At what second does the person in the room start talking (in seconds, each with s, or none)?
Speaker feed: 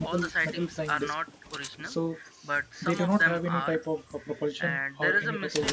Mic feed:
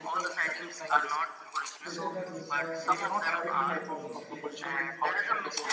1.8 s